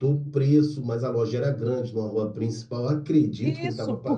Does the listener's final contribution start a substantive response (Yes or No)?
Yes